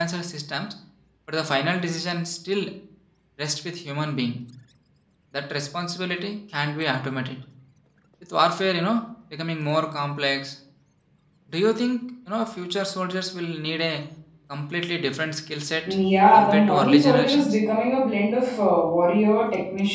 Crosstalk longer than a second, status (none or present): present